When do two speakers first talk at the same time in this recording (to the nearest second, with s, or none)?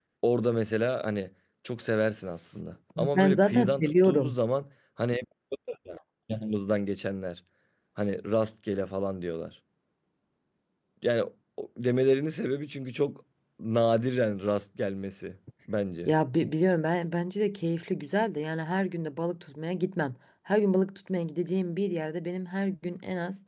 3 s